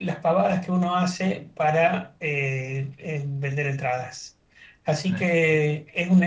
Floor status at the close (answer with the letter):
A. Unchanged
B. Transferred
A